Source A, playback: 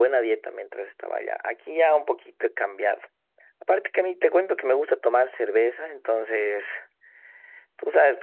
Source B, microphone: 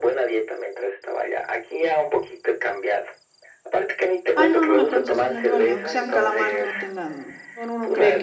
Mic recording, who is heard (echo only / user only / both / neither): both